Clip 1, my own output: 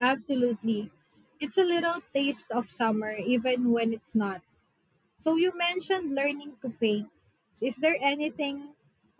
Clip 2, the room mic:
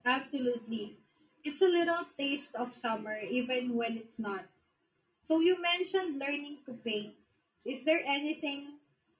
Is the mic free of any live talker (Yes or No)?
Yes